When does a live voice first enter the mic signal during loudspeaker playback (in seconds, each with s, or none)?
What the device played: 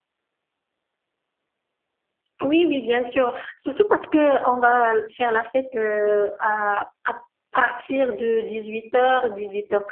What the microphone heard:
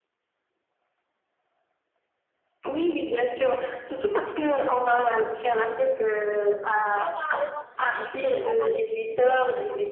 6.9 s